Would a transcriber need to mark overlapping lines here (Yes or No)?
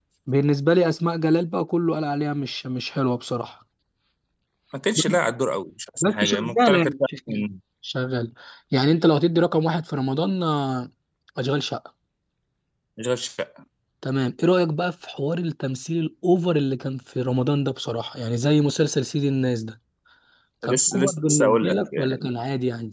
Yes